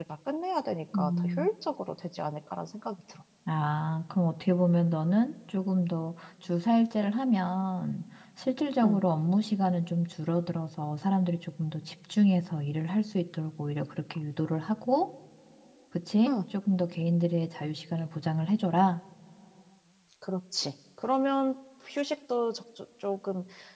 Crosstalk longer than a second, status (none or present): none